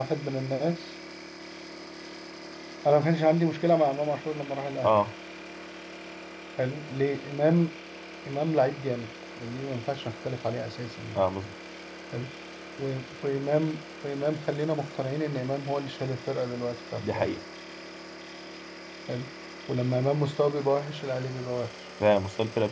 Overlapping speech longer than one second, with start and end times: none

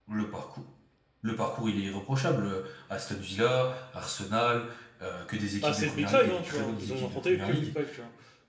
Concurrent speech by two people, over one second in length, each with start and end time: 5.6-7.7

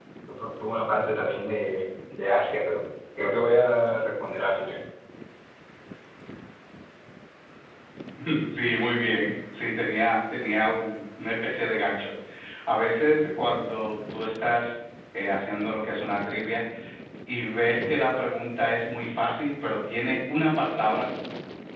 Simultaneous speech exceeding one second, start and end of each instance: none

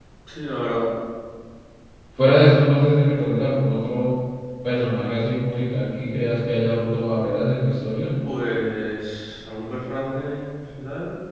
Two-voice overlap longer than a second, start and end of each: none

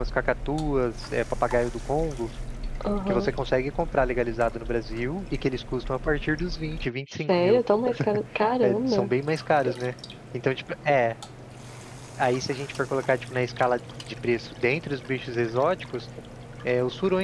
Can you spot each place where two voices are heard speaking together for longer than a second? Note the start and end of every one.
none

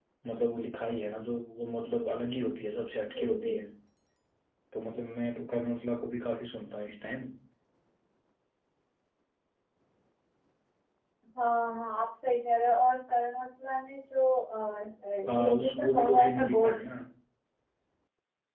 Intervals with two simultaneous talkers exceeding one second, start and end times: 15.3-16.8

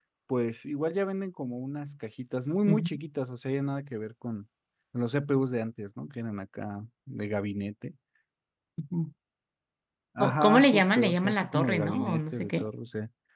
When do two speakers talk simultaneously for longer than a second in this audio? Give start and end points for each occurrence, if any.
10.2-12.6

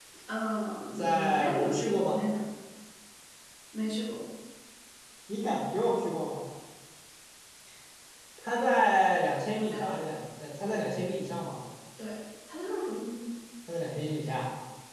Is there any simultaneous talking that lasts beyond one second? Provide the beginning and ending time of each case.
0.9-2.2

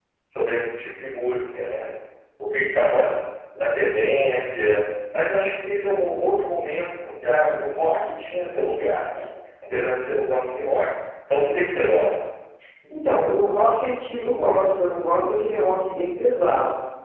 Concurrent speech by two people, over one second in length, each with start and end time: none

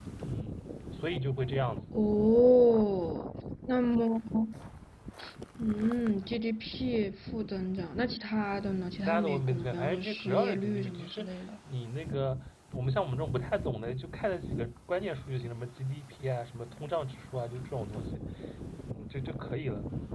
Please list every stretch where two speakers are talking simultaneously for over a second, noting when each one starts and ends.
9.0-11.3

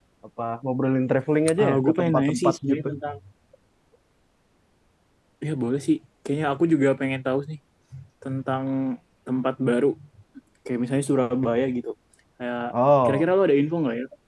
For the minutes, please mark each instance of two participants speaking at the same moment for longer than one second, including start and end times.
1.6-2.9

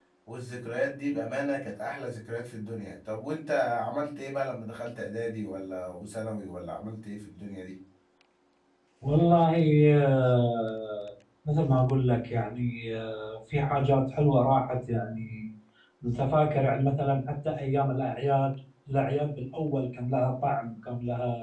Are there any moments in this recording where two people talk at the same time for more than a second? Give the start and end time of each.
none

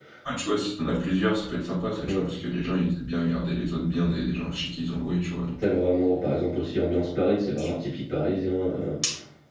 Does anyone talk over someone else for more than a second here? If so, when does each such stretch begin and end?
none

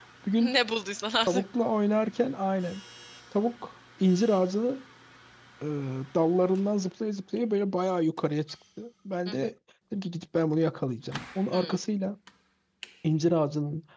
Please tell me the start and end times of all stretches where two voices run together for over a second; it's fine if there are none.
none

